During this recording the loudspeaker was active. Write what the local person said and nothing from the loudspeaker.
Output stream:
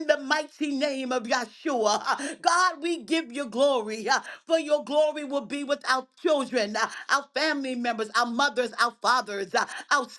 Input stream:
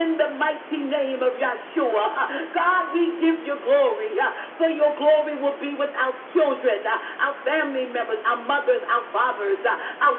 none

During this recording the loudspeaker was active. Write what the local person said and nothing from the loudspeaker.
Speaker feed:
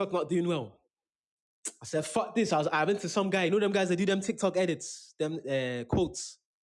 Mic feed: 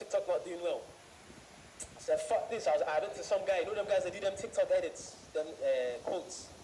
none

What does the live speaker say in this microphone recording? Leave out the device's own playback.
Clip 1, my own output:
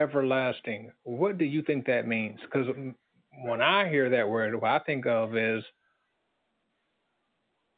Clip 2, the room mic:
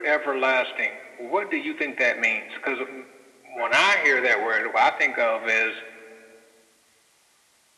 none

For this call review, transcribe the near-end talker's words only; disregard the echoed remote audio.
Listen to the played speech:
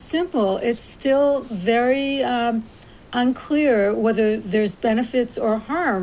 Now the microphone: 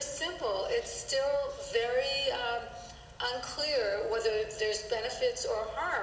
none

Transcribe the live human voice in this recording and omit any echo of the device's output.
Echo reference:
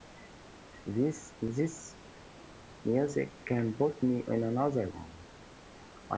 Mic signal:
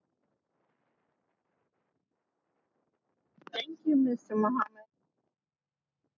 Thank you, Mr. Muhammad.

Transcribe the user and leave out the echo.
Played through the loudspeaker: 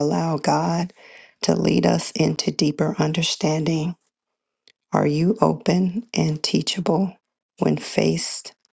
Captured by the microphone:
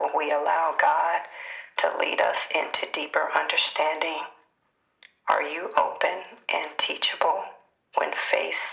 none

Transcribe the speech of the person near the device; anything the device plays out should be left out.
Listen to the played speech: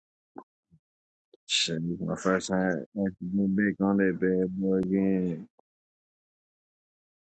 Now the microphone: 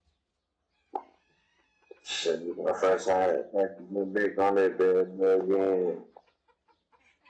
none

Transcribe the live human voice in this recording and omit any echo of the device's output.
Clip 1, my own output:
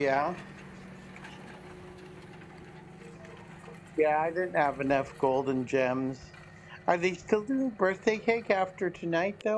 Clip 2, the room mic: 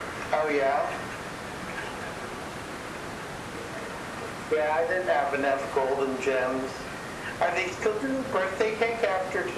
none

